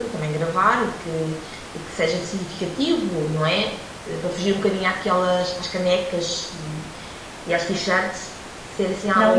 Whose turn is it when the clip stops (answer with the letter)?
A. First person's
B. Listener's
B